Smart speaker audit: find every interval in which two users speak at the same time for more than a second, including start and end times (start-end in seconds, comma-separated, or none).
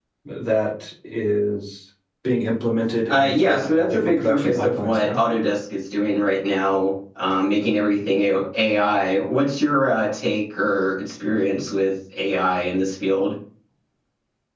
3.1-5.2